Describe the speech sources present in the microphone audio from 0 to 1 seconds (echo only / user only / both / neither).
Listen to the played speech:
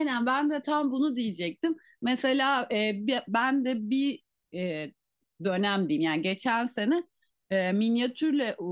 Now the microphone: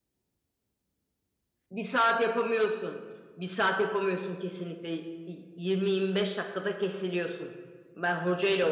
neither